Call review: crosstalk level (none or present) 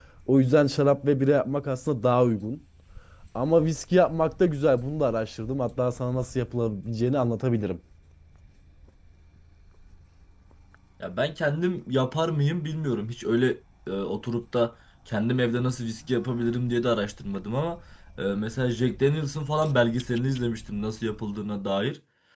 none